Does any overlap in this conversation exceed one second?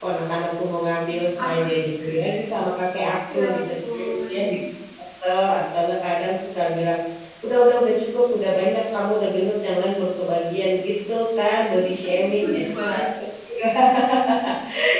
Yes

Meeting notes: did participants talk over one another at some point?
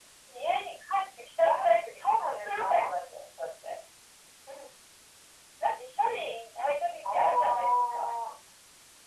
Yes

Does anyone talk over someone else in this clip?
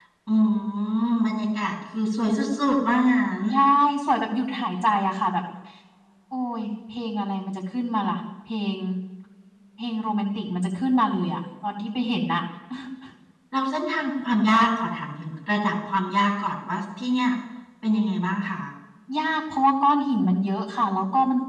No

